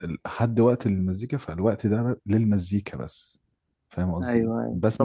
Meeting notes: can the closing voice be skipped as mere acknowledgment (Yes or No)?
No